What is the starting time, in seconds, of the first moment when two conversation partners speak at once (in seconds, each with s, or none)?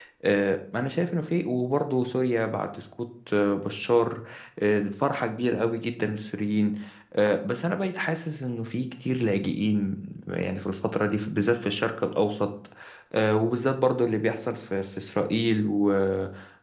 none